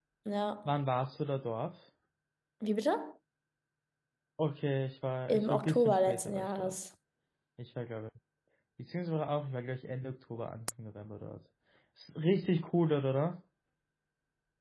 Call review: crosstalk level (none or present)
present